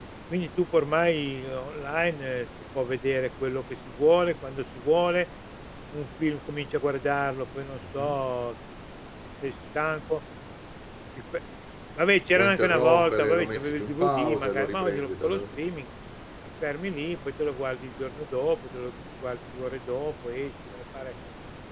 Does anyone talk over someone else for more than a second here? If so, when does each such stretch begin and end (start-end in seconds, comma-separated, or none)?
12.3-15.4